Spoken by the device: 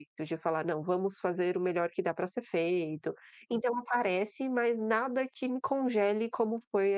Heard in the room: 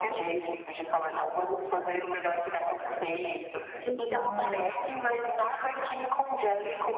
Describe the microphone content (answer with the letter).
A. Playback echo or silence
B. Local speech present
B